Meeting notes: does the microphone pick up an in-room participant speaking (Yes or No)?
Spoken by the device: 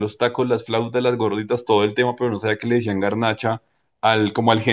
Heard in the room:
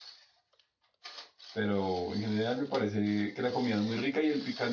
Yes